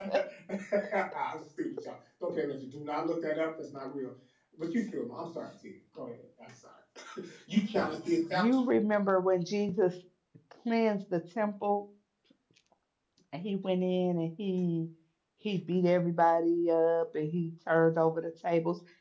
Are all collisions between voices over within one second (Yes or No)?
Yes